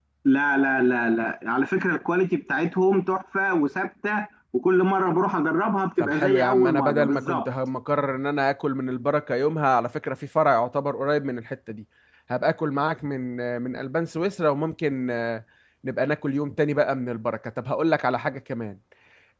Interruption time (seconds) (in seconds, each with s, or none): 6.0 s